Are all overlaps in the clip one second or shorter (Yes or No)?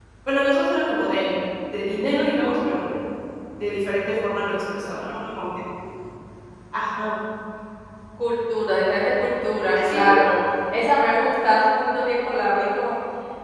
Yes